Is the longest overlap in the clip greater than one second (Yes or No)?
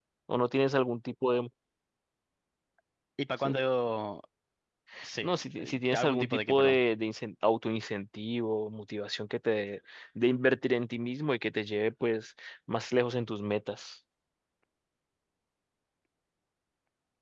Yes